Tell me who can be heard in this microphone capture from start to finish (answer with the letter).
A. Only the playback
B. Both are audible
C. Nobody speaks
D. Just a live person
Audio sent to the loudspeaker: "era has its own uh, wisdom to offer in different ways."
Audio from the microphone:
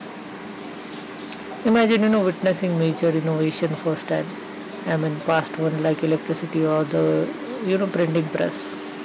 D